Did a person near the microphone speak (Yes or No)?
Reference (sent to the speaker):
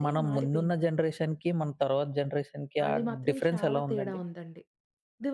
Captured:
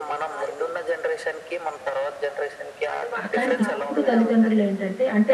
Yes